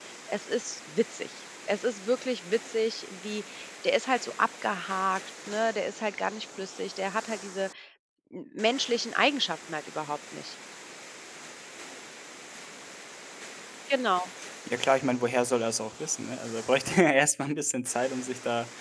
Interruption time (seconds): none

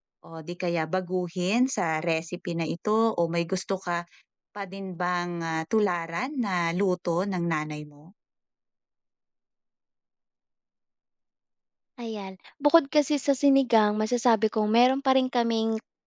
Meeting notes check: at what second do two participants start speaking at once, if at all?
none

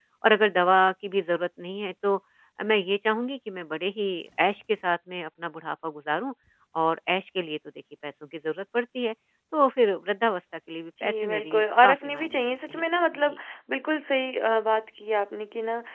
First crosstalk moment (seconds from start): 11 s

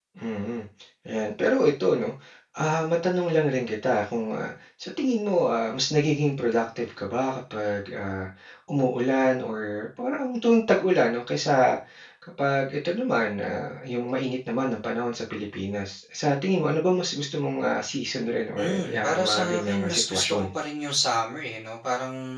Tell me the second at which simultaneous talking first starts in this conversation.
19 s

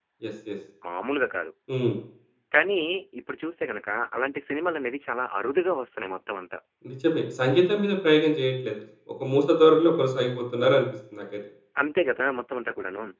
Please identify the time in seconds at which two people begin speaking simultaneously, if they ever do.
none

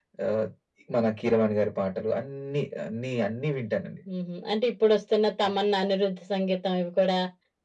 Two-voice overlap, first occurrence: none

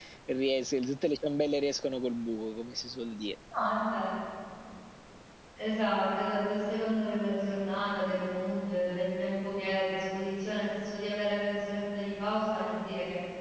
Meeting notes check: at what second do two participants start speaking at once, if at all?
none

